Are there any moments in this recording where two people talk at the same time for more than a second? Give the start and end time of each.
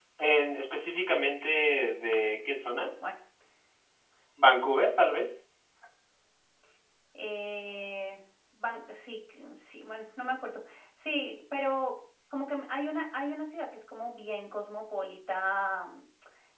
none

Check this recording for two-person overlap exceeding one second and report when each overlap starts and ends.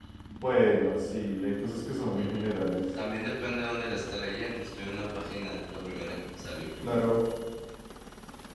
none

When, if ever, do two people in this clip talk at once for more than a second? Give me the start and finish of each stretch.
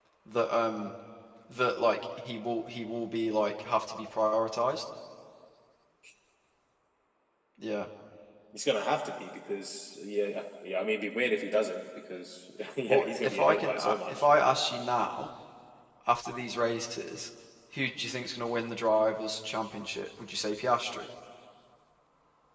12.9-14.2

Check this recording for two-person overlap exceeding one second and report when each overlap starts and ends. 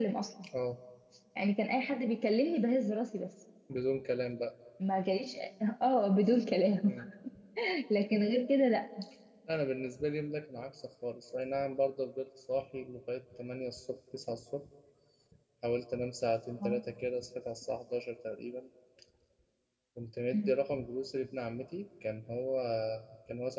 none

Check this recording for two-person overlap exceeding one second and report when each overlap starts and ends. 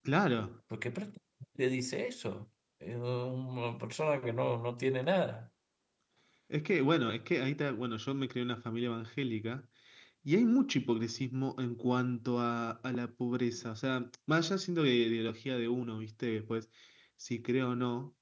none

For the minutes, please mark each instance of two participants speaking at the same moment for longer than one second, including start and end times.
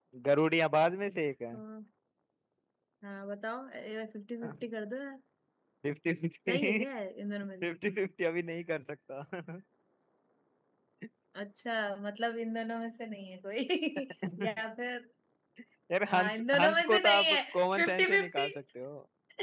16.1-18.5

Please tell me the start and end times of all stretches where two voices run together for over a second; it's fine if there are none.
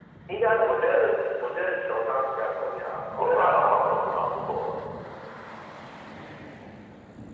3.0-4.7

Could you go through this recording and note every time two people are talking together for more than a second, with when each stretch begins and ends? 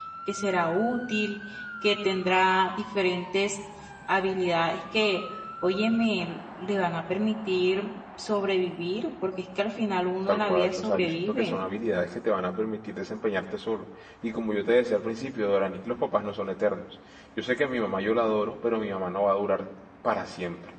10.3-11.6

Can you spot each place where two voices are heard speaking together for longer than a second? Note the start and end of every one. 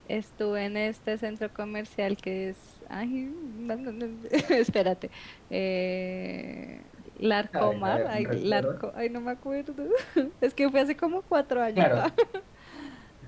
7.5-8.8

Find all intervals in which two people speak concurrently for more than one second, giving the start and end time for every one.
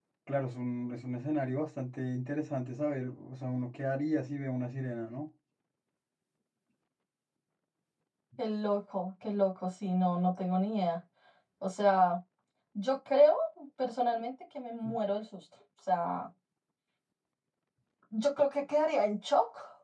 none

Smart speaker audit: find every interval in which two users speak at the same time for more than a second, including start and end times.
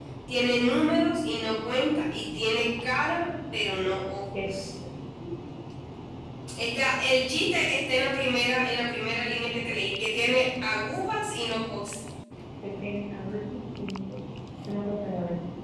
none

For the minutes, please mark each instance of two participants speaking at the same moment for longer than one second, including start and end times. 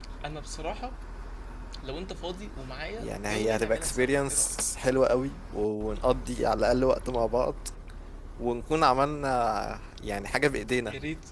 3.0-4.5

